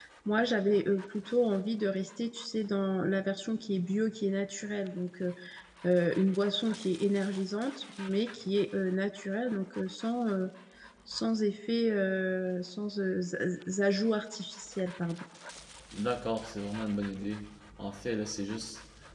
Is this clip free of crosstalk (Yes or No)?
Yes